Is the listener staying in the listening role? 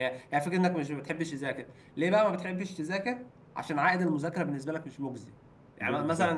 Yes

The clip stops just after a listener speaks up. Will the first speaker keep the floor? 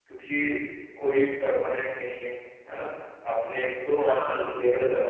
Yes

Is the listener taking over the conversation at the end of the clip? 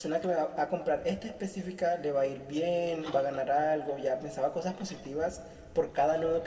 No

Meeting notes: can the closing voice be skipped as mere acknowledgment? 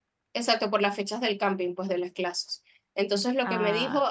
Yes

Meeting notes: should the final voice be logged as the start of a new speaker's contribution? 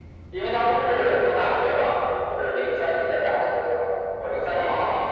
No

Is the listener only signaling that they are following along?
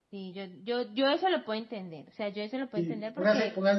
No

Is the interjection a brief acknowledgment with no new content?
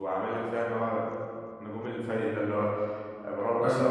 Yes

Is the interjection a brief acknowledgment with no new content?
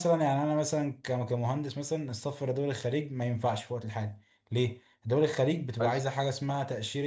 Yes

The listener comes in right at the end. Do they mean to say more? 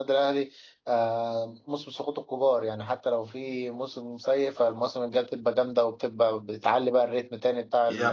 Yes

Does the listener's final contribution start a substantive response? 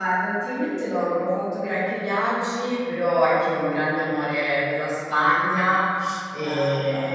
No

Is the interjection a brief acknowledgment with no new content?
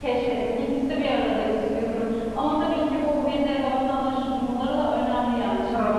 No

